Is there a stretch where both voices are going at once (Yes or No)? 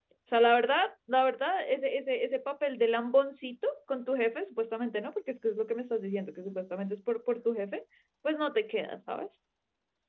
No